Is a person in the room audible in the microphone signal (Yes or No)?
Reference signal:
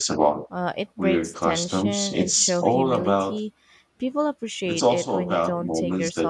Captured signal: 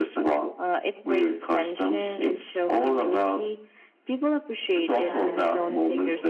Yes